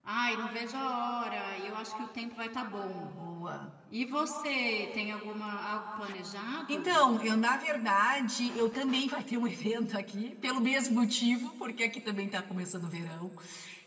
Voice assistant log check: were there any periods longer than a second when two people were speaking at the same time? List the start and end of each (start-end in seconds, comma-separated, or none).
none